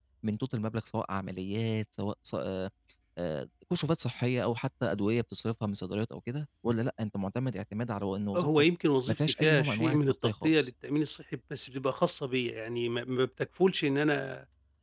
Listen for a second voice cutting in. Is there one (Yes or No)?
Yes